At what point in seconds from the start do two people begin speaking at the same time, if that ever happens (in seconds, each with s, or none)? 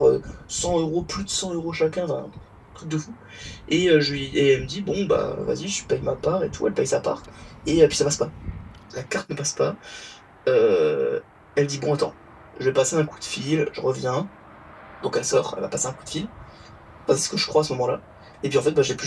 none